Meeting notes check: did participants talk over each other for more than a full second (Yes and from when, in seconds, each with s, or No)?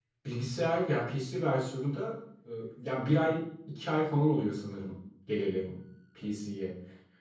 No